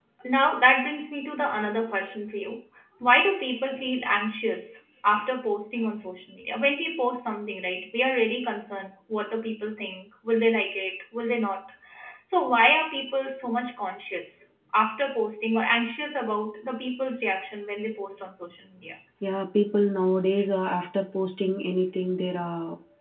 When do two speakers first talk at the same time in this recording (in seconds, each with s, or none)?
none